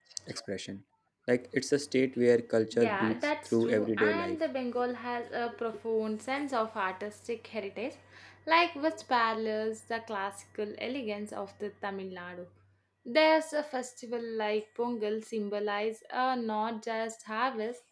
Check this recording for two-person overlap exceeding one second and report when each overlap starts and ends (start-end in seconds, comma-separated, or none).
2.8-4.4